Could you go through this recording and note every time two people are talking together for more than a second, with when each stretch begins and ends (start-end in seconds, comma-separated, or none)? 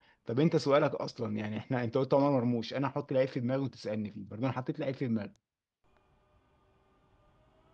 none